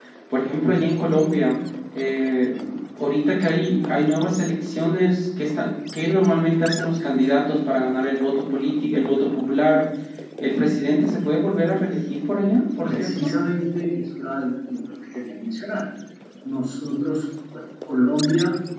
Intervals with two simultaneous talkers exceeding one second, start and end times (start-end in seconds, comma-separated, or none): none